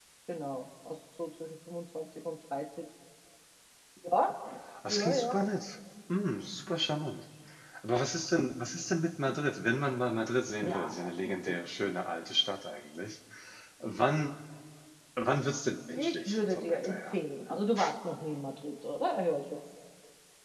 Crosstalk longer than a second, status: present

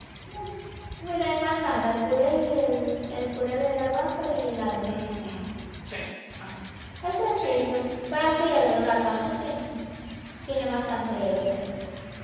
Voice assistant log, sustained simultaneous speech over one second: none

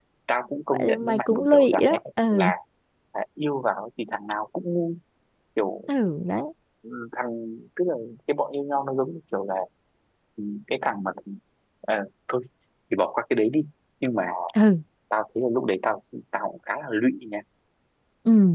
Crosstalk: present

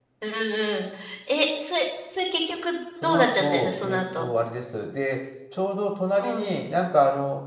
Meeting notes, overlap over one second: present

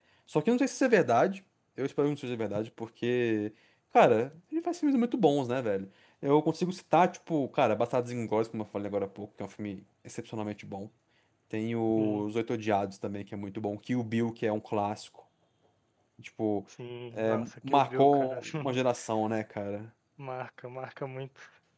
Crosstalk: present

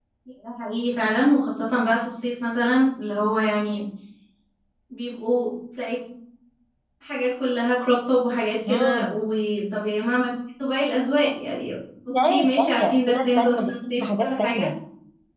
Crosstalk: present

